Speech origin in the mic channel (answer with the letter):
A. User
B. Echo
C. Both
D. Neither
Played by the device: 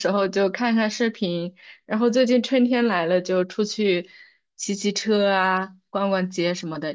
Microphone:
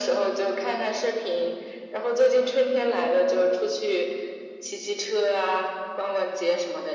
B